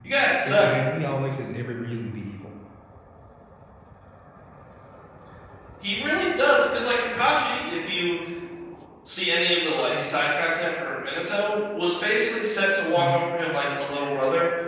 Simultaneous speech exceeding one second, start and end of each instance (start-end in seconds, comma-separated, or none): none